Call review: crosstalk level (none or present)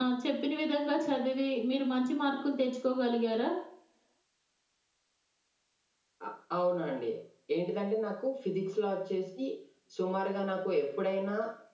none